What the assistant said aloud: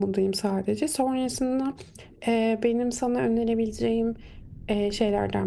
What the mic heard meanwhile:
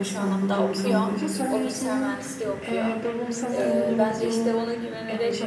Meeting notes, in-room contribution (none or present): present